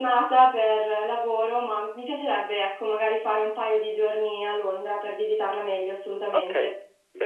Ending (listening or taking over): taking over